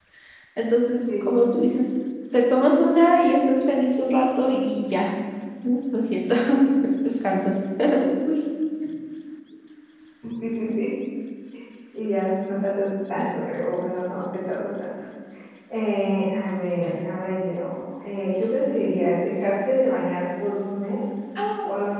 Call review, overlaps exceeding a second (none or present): none